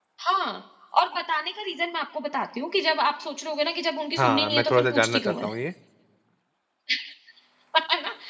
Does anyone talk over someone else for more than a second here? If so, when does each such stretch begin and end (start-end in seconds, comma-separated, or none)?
4.2-5.5